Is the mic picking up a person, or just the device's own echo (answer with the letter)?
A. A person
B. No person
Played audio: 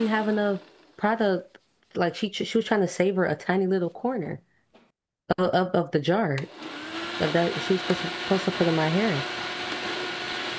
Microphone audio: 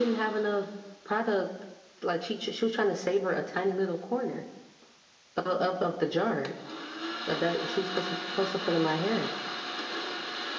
B